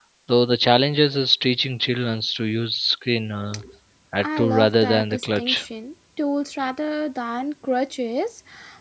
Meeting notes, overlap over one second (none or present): present